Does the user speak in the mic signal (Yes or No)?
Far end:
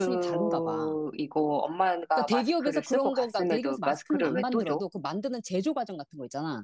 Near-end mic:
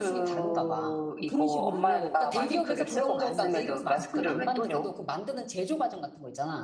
Yes